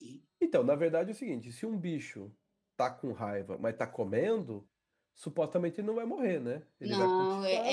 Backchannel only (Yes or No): No